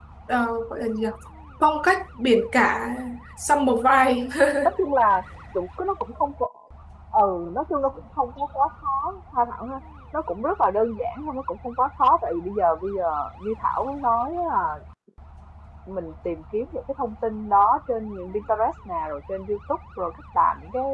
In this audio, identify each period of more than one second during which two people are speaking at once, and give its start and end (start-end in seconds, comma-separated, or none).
none